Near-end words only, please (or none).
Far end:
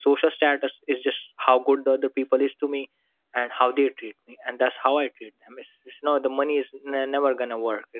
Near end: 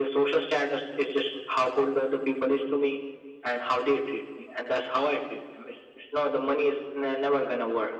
none